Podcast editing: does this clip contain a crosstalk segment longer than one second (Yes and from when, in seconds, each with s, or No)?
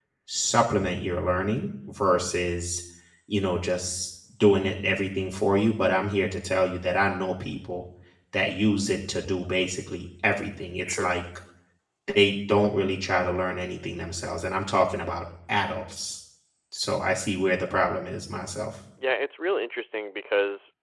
No